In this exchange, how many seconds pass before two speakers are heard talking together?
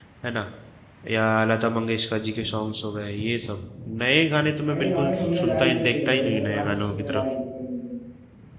5 s

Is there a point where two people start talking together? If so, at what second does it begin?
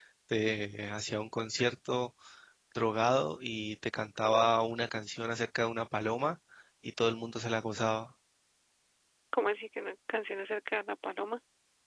none

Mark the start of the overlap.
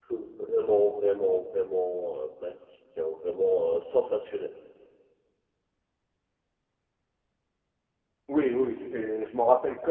none

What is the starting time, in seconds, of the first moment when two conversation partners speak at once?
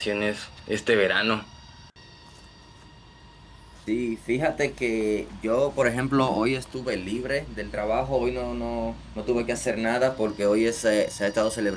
none

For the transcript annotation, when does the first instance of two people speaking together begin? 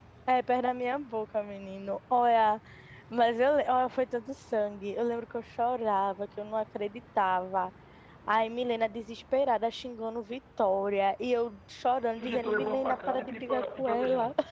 12 s

